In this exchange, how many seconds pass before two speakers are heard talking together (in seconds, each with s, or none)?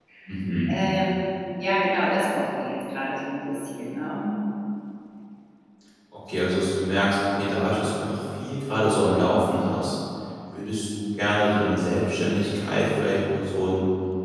none